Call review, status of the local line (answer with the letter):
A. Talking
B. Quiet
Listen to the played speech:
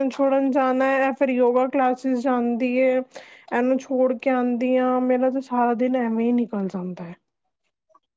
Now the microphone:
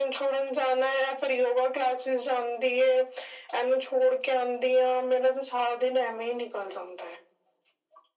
B